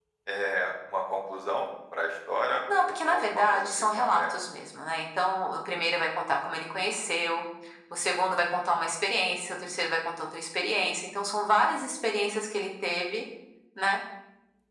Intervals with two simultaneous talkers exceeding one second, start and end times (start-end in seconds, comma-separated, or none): 2.8-4.3